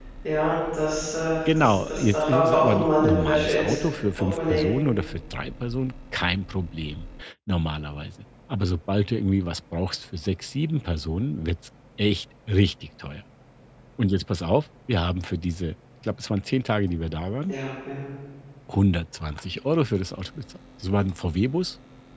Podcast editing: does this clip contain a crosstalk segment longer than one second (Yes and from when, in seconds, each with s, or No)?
Yes, from 1.4 s